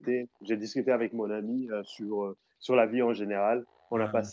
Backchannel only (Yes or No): Yes